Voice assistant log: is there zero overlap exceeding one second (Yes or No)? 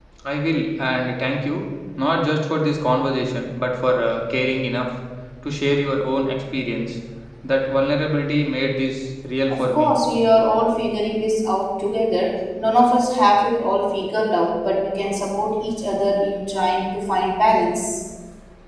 Yes